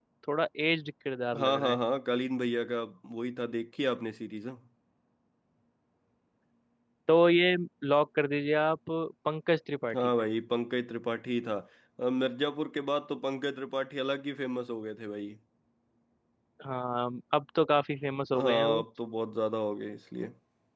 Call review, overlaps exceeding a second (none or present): none